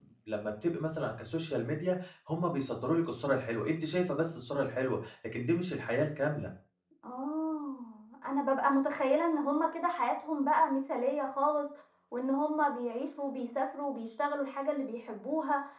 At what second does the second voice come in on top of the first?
none

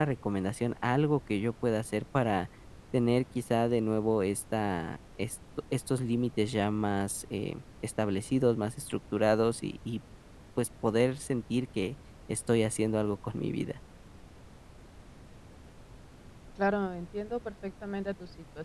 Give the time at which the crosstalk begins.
none

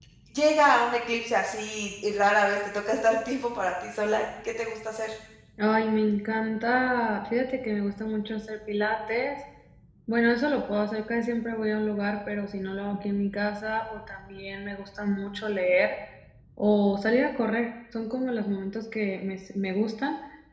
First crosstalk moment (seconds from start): none

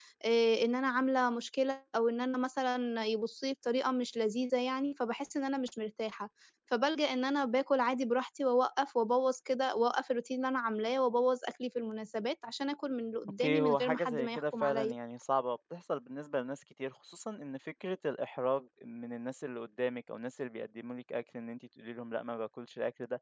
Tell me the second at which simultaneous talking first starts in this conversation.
13.4 s

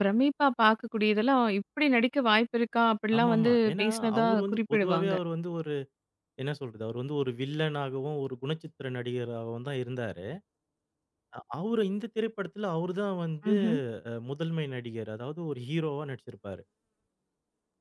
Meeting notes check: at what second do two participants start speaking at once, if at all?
3.2 s

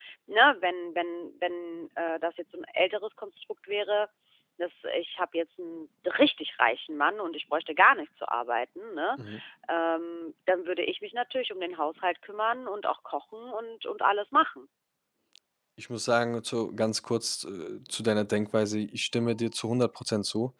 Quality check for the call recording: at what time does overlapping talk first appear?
none

